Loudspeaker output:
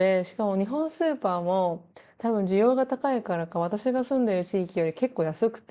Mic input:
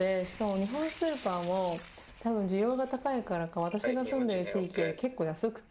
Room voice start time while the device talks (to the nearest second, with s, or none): 4 s